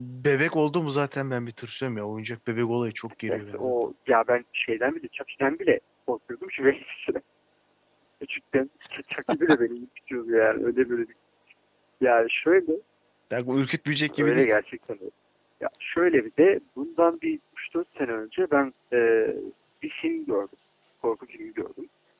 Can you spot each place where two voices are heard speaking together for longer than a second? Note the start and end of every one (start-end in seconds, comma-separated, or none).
none